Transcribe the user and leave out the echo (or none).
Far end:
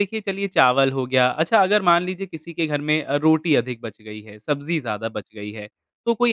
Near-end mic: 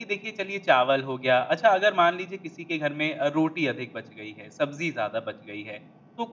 none